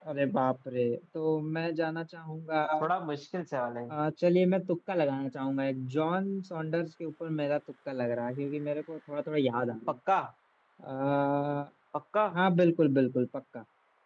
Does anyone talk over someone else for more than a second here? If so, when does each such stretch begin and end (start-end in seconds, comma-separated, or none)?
none